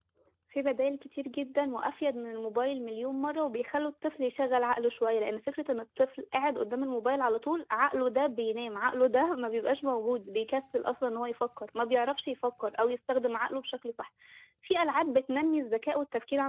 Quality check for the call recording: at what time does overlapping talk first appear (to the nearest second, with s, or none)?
none